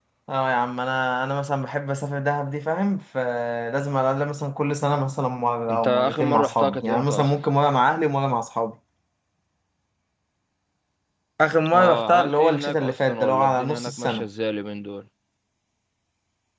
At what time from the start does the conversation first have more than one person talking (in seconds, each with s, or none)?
5.7 s